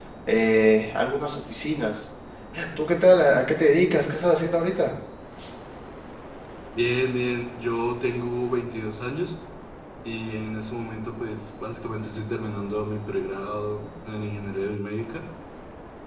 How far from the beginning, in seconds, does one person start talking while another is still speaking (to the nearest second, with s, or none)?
none